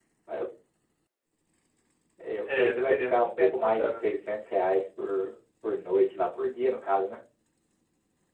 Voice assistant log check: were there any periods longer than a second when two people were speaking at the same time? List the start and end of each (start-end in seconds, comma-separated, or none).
2.6-3.9